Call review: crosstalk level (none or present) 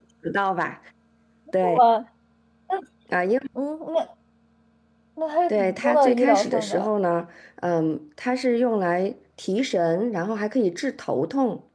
present